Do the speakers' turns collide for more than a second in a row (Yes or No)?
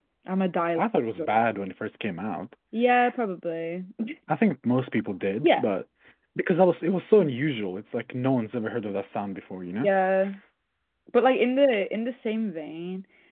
No